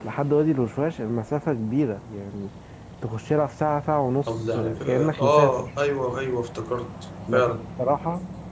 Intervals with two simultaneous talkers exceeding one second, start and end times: 4.3-5.7

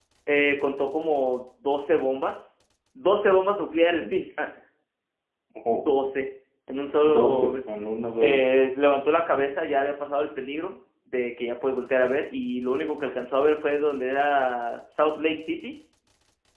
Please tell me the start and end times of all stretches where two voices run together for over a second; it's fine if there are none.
none

